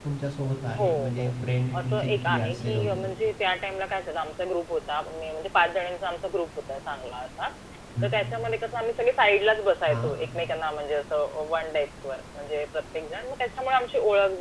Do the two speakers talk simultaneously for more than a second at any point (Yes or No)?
Yes